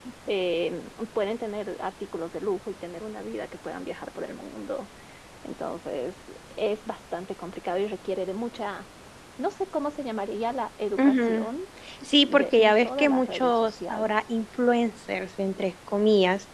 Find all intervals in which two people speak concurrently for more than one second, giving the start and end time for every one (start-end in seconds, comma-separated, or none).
12.2-14.1